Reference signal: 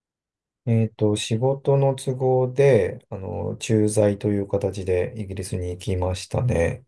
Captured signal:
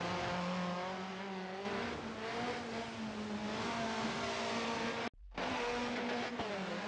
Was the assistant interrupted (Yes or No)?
No